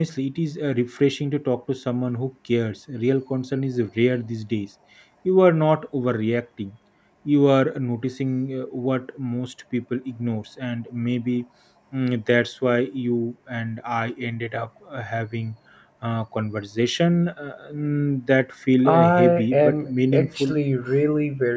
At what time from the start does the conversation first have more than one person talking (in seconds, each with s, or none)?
18.8 s